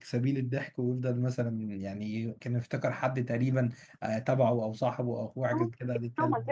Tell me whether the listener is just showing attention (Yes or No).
No